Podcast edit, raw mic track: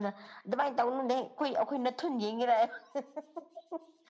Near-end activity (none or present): none